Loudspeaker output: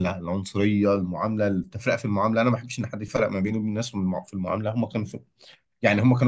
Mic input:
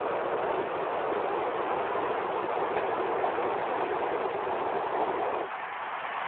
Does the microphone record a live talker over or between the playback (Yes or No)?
No